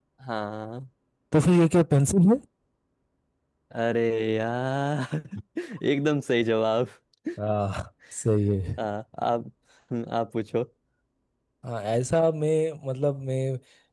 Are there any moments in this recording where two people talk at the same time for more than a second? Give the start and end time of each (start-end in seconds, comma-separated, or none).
none